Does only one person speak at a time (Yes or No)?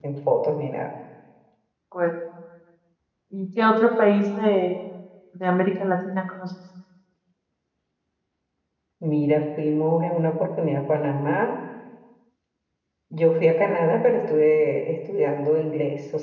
Yes